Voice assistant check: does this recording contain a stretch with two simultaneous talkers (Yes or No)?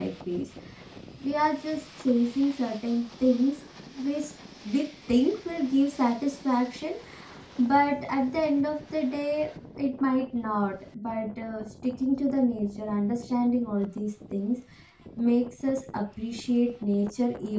No